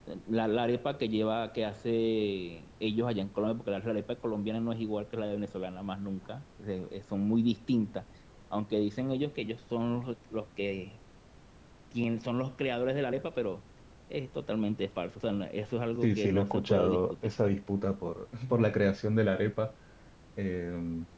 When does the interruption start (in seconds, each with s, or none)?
16.0 s